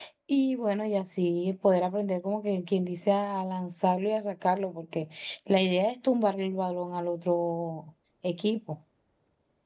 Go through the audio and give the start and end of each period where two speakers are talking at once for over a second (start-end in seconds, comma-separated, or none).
none